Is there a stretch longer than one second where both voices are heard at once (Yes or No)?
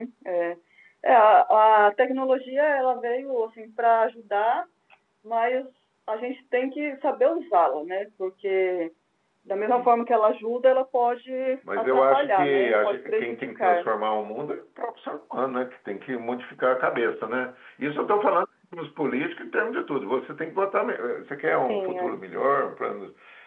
Yes